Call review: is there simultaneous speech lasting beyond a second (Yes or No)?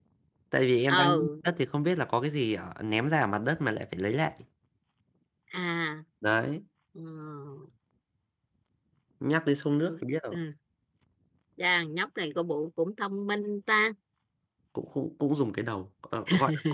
No